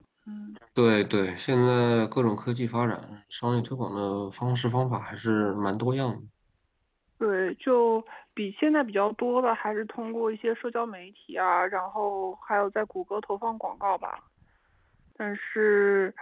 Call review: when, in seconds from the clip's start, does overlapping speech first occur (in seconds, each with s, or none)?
none